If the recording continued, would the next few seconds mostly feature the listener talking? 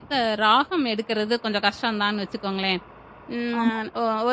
No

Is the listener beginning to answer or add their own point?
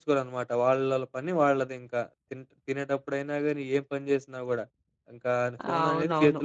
No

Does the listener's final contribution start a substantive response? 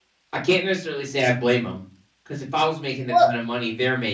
No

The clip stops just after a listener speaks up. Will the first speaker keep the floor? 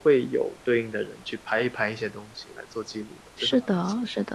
No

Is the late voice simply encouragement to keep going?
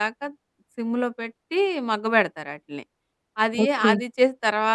Yes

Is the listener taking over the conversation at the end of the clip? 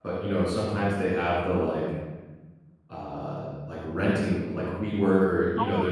No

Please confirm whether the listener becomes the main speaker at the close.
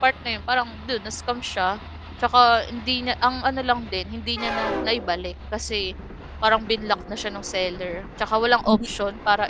No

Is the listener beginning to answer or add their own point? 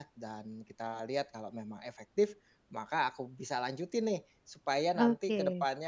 No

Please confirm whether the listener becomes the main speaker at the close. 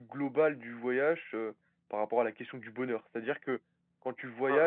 No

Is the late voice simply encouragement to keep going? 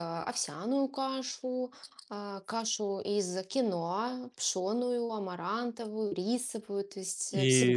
No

